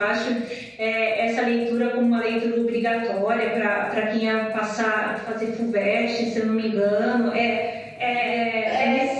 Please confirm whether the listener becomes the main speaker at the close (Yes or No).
No